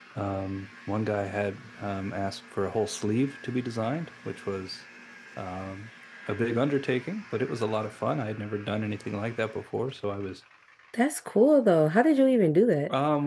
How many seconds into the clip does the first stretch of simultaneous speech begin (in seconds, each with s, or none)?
none